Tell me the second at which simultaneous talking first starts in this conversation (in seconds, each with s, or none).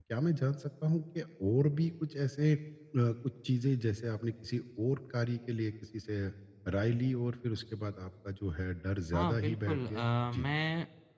9.1 s